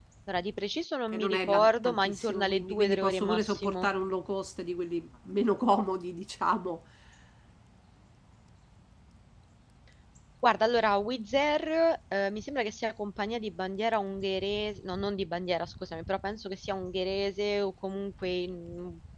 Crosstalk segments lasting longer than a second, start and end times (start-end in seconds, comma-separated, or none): 1.1-3.9